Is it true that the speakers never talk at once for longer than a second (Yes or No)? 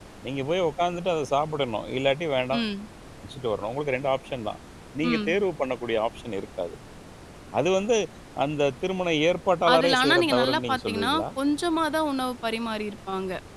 No